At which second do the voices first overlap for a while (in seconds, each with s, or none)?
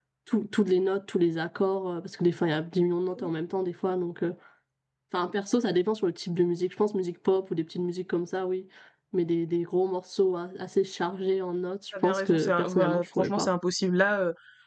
11.9 s